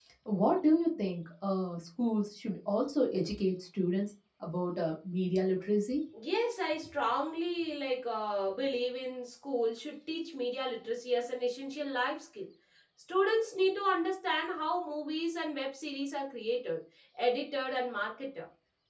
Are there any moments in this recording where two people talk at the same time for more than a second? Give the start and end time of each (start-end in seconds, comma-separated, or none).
none